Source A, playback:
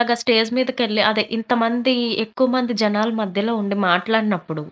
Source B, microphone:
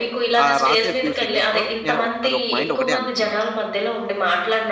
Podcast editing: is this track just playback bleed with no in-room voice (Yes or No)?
No